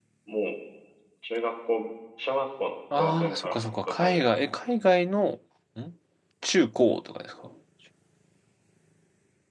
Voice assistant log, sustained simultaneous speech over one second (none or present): present